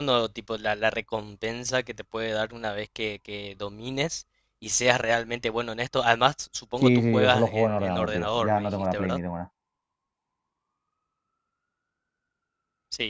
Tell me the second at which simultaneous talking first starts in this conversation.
6.8 s

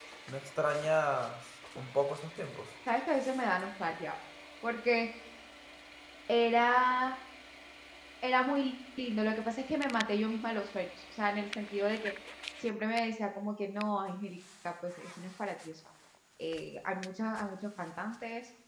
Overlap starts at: none

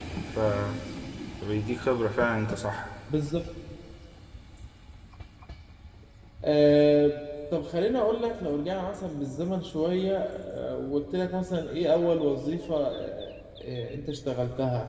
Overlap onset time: none

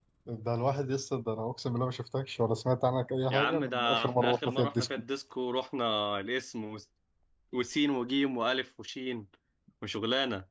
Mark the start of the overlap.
3.3 s

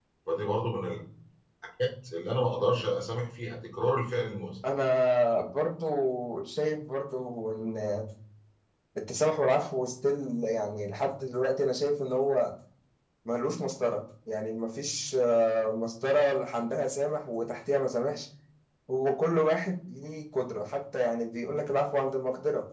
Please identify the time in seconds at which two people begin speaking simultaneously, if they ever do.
none

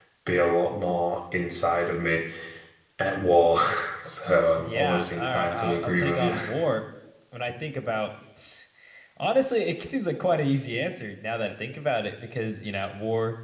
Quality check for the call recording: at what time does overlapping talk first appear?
4.6 s

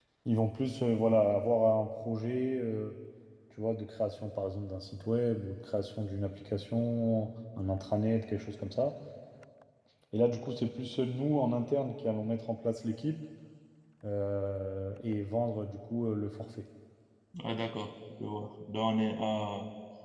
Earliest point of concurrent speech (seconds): none

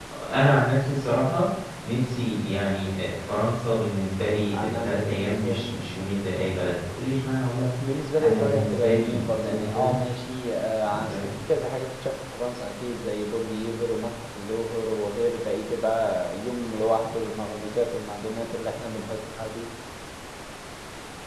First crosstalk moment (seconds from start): 4.5 s

